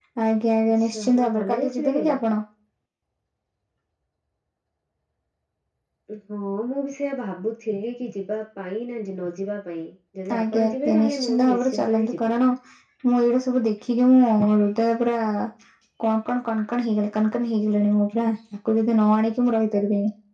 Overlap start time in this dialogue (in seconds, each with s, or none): 0.7 s